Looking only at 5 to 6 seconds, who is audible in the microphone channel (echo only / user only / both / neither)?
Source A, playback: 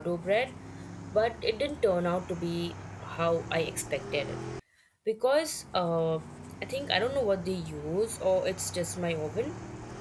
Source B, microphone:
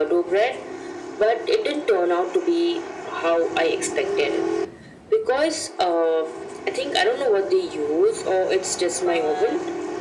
echo only